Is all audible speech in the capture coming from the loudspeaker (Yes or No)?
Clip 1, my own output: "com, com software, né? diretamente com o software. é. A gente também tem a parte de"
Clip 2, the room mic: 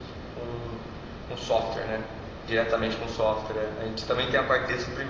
Yes